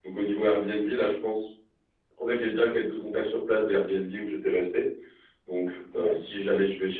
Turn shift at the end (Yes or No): No